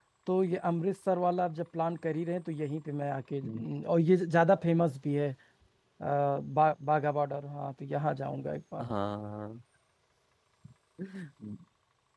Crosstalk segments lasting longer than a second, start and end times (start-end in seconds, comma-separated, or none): none